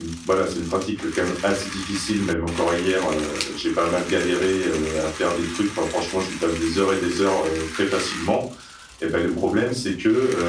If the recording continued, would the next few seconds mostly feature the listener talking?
No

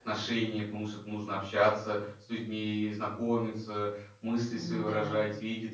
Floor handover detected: No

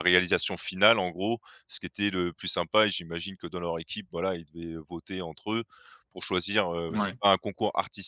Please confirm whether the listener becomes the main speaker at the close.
No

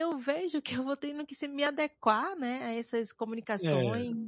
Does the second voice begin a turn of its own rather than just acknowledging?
No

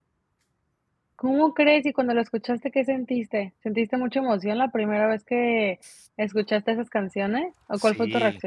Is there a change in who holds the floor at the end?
Yes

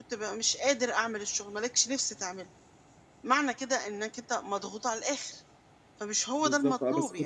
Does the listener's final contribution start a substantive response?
Yes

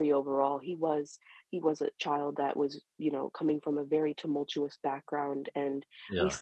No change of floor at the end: Yes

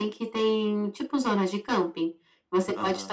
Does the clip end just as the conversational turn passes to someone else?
No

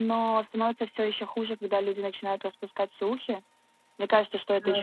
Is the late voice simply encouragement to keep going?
Yes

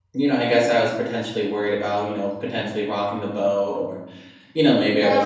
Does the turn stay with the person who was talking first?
No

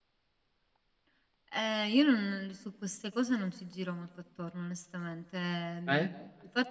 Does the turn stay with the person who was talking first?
Yes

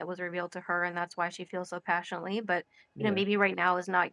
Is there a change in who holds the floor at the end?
No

